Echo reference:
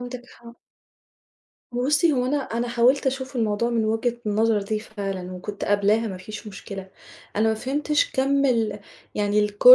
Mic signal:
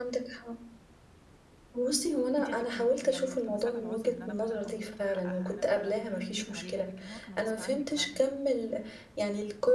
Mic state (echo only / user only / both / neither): both